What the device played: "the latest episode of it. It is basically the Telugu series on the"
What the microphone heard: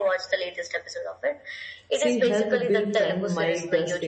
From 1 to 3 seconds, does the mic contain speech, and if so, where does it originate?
both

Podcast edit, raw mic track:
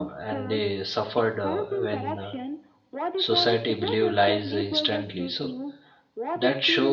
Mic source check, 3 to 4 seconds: both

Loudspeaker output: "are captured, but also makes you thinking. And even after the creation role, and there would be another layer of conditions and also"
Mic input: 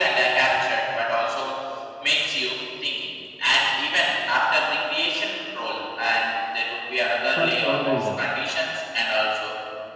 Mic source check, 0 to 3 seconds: echo only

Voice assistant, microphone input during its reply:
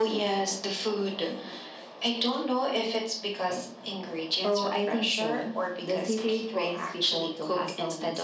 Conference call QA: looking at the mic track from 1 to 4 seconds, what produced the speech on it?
echo only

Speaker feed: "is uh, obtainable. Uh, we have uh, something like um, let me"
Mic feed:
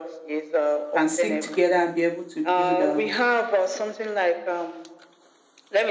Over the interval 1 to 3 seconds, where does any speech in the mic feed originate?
both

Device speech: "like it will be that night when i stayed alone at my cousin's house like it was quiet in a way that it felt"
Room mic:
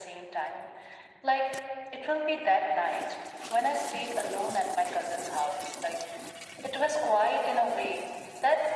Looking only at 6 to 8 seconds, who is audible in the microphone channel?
echo only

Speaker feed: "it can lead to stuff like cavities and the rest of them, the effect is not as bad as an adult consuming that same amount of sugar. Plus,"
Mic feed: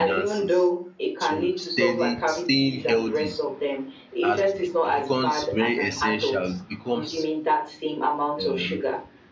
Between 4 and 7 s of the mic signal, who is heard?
both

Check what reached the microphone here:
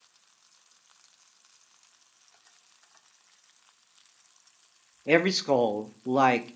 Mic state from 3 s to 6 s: user only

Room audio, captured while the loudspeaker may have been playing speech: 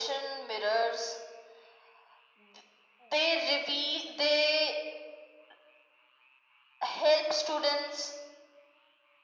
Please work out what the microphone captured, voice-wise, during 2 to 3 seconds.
echo only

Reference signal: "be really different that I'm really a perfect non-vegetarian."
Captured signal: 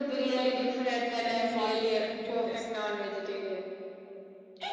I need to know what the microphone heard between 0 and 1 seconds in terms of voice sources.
echo only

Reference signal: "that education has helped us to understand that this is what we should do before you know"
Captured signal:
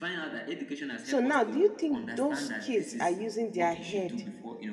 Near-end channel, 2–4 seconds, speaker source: both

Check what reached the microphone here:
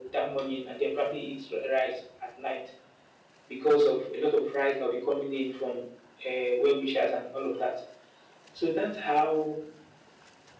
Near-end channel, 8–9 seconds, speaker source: echo only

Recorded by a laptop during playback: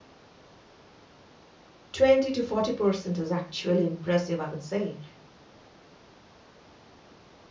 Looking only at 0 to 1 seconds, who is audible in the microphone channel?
neither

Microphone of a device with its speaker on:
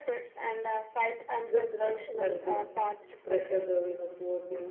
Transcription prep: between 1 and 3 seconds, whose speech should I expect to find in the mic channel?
both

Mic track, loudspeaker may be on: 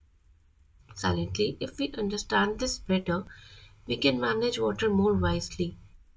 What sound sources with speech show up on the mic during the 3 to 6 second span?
user only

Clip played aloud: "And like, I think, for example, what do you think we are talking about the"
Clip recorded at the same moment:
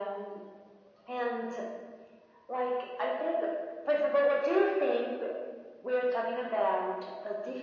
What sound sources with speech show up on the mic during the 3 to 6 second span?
echo only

